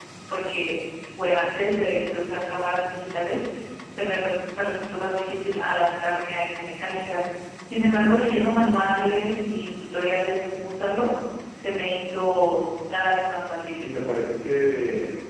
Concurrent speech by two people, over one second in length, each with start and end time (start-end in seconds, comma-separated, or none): none